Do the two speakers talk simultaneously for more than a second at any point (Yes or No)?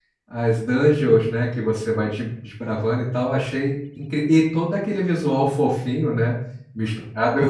No